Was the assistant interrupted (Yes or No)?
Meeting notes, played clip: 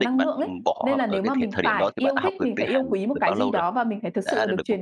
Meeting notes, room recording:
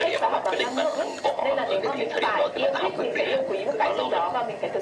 No